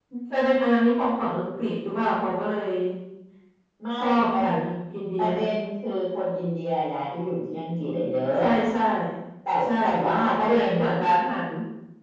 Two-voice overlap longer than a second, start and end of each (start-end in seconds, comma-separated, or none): 9.7-10.9